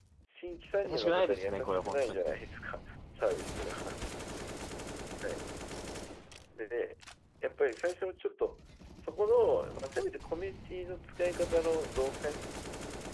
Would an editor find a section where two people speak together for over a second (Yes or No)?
Yes